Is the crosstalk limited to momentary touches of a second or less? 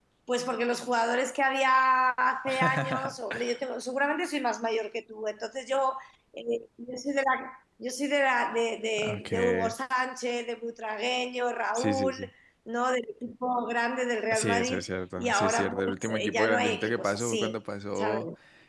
No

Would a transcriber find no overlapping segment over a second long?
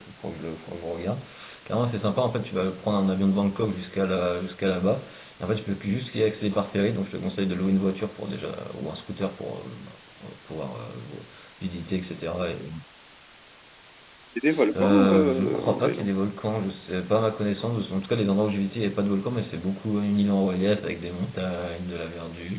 No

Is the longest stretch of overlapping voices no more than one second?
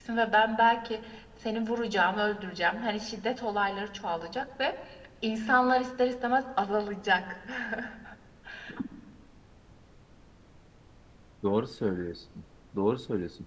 Yes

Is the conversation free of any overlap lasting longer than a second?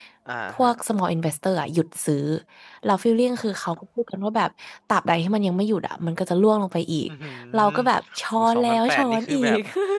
No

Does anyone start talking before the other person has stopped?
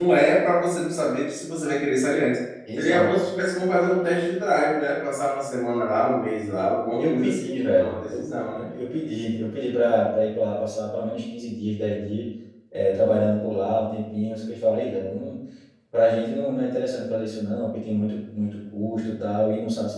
Yes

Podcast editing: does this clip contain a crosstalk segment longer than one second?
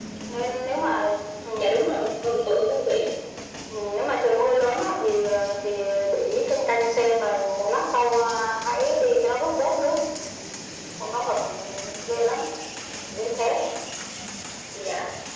No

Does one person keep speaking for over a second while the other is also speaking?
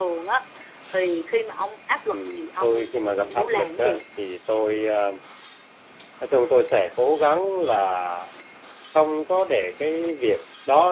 Yes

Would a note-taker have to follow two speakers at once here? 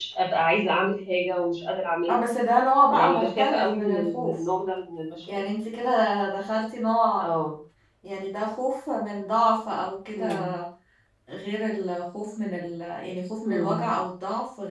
Yes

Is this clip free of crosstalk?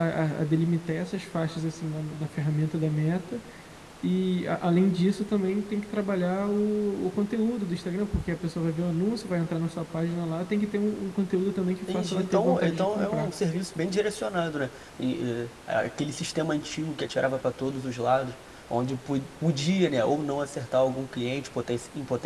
No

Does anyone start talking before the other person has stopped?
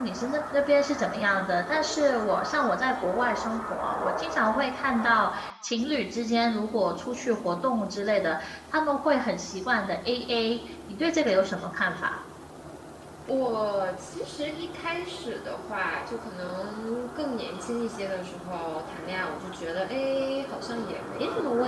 No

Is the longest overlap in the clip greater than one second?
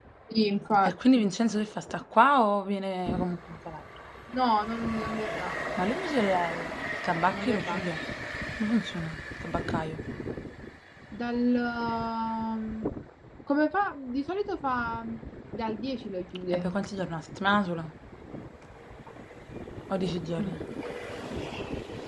No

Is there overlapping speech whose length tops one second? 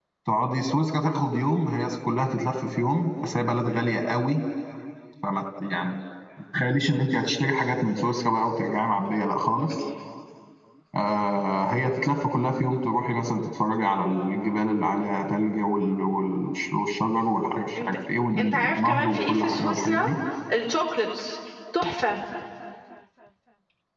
Yes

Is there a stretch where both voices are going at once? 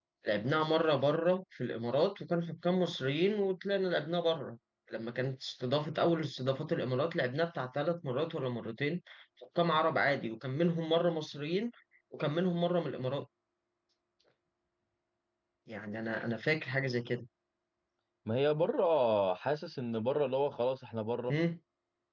No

